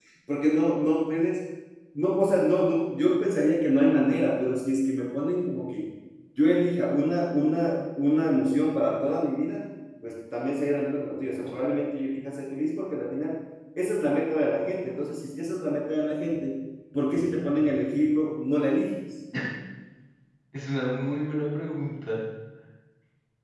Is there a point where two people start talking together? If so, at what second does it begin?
none

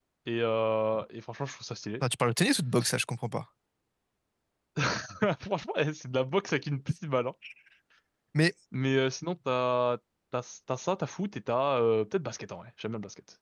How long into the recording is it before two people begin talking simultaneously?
none

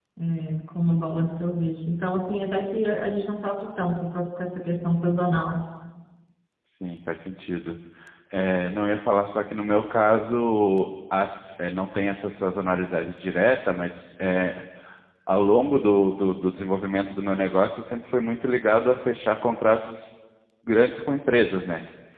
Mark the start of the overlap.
none

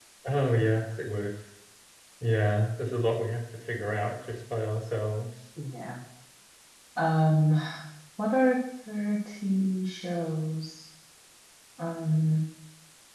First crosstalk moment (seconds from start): none

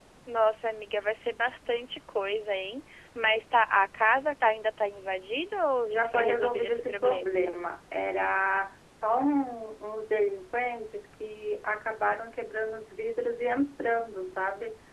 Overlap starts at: 6 s

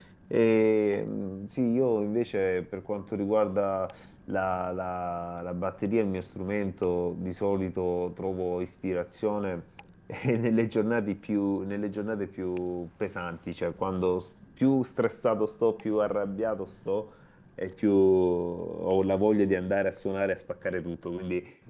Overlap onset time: none

